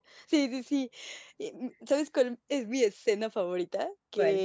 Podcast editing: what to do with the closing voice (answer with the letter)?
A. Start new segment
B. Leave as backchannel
B